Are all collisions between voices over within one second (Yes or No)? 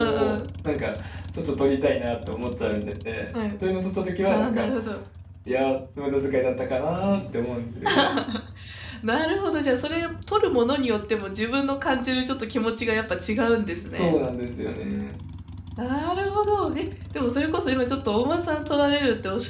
Yes